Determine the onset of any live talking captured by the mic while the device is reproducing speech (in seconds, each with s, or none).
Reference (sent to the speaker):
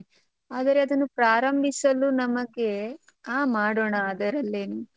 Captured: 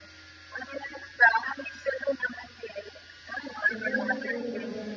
3.7 s